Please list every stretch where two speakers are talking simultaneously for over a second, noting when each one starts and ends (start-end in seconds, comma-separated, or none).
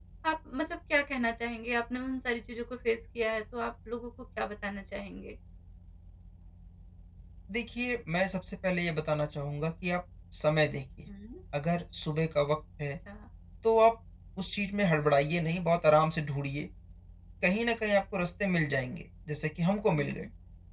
none